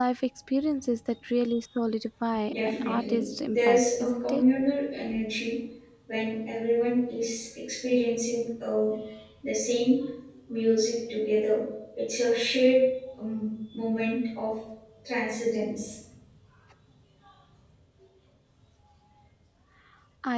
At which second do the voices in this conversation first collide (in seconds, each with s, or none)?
2.5 s